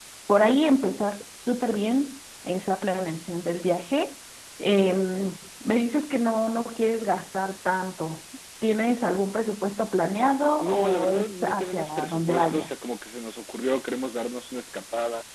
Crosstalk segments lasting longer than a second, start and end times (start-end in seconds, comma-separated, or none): 10.6-12.9